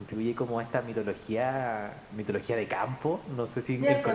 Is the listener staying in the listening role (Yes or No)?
No